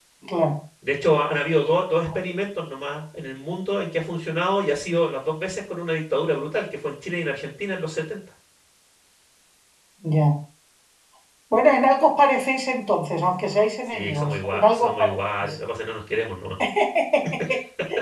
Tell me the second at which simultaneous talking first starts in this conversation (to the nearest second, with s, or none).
14 s